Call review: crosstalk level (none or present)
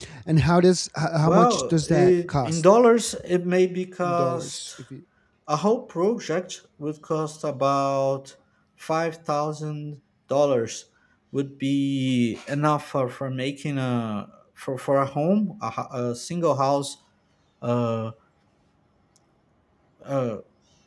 present